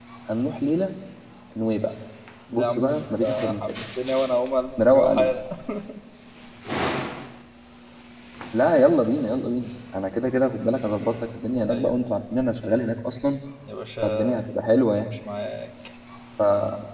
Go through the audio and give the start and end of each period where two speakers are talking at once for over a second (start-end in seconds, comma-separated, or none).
2.5-3.8